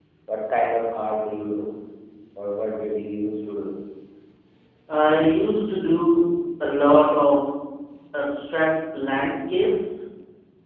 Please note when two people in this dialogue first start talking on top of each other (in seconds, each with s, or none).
none